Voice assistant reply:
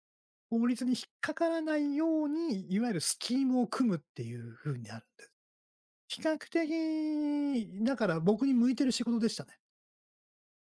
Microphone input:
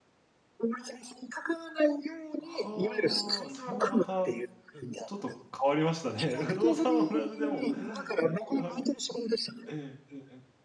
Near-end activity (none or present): present